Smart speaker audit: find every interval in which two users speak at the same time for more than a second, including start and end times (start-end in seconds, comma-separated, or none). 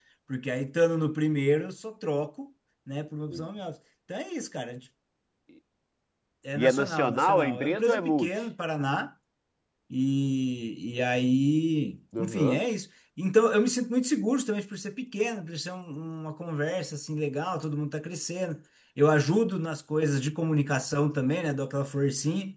6.6-8.3